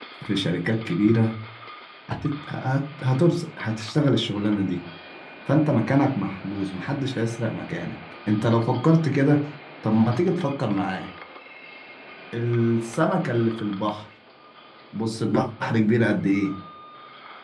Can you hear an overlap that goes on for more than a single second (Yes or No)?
No